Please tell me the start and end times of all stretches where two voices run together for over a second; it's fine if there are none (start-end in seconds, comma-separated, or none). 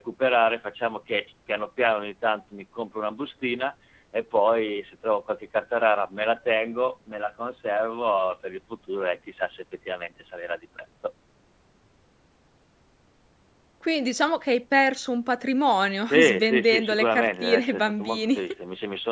16.0-18.4